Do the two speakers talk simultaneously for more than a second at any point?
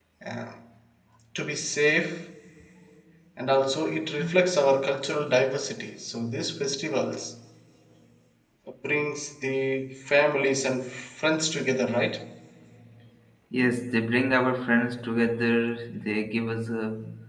No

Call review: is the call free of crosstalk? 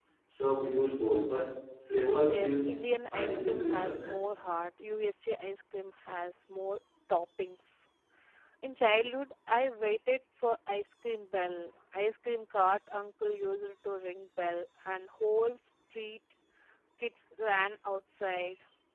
No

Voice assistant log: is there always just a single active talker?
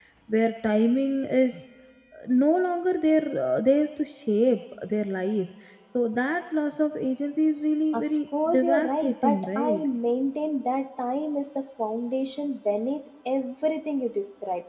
No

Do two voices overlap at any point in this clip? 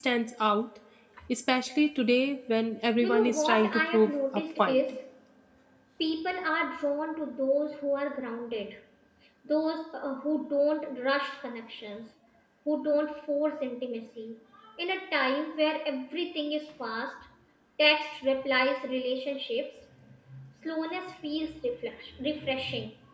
Yes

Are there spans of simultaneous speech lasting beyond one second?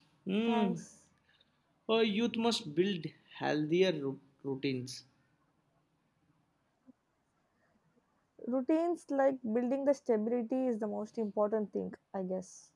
No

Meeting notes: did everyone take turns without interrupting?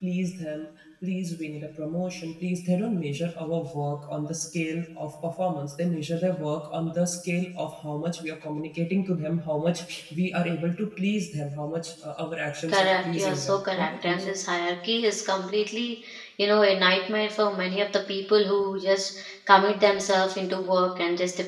No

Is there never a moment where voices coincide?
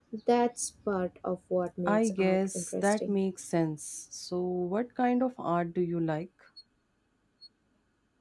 No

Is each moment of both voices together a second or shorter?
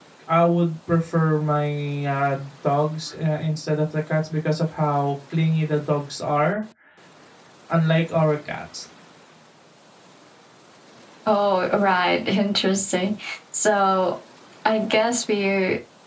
Yes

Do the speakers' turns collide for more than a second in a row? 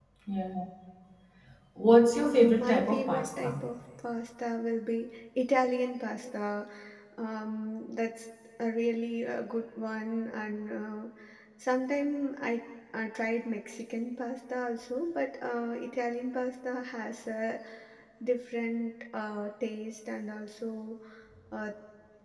Yes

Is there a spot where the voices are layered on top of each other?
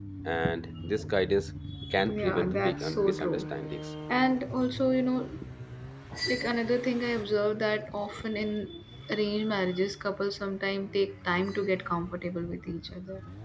Yes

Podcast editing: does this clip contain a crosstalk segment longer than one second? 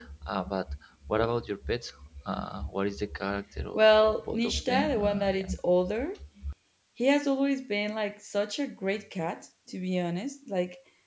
Yes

